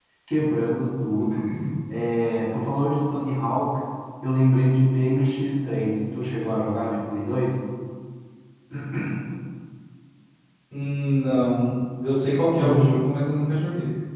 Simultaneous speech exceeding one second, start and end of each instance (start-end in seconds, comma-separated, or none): none